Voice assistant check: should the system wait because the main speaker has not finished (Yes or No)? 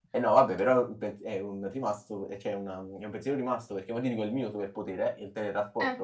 Yes